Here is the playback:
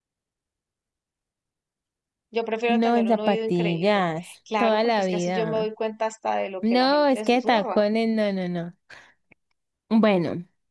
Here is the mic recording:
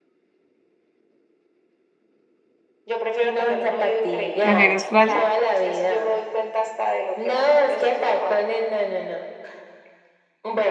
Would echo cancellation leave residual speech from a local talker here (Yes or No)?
Yes